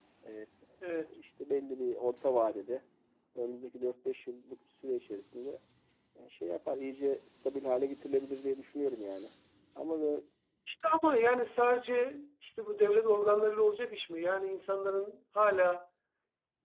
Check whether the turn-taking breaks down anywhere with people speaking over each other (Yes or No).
No